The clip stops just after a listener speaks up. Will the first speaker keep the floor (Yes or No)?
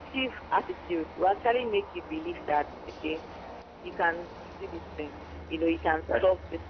Yes